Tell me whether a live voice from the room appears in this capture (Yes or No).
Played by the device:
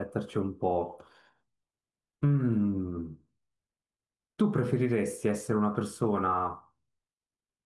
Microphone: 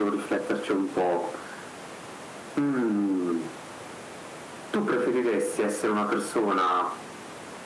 No